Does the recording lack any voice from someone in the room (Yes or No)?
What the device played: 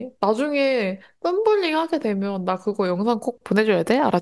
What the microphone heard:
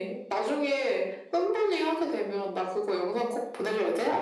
Yes